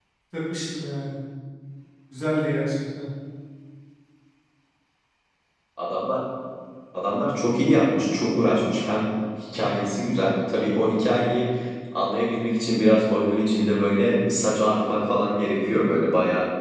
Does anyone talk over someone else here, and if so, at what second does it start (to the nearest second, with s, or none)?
none